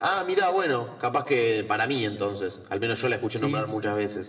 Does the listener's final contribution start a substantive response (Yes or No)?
Yes